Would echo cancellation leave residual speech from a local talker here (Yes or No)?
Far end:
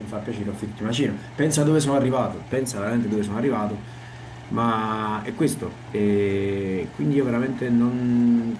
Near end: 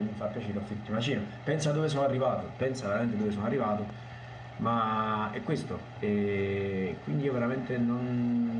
No